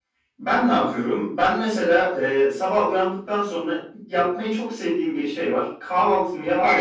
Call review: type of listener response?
listening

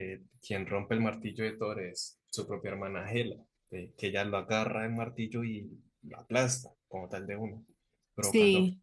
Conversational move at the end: listening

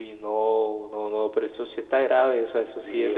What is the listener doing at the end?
taking over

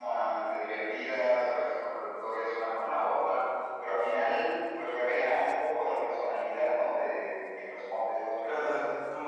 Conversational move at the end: taking over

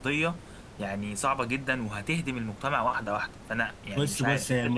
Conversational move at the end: taking over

